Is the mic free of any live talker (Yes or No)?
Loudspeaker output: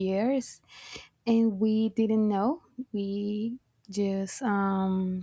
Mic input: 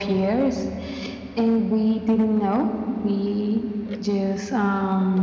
Yes